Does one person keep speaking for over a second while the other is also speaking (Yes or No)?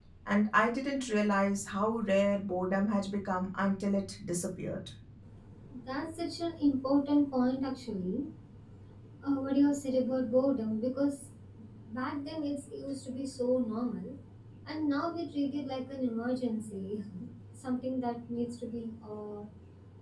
No